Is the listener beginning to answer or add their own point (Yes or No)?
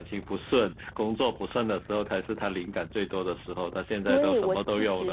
Yes